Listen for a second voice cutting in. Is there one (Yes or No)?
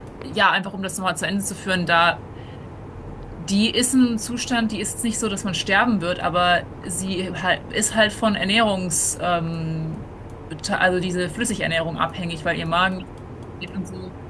No